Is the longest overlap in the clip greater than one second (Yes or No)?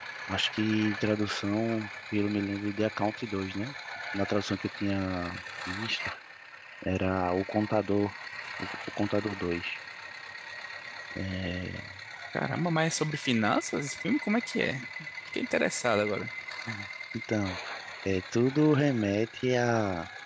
No